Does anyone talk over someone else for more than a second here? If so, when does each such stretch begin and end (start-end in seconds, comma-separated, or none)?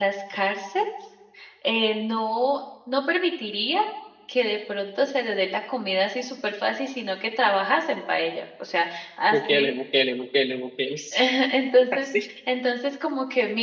none